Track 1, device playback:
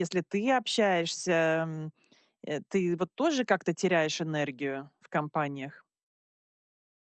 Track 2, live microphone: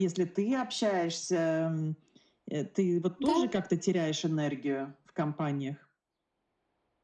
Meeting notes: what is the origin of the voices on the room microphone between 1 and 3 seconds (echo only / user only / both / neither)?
echo only